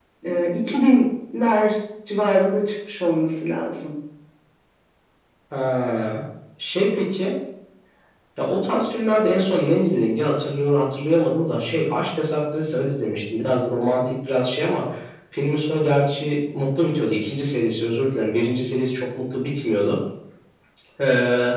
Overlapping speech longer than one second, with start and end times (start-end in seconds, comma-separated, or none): none